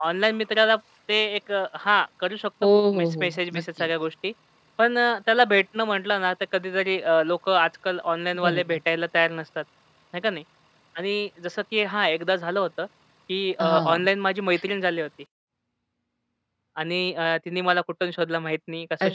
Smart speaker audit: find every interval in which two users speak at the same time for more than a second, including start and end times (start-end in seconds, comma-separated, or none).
2.6-3.9